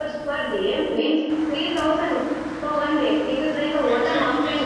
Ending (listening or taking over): taking over